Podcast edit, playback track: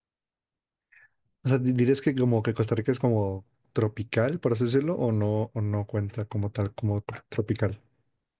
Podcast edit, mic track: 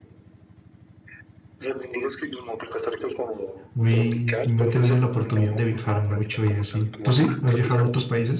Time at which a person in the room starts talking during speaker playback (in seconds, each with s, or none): 3.7 s